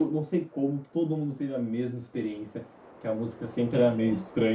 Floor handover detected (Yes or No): No